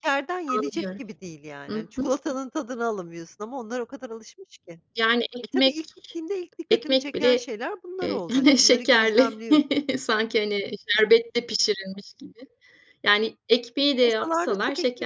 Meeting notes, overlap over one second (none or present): present